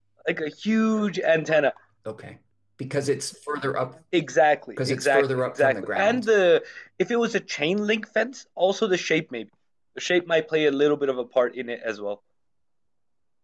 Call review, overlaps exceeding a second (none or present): present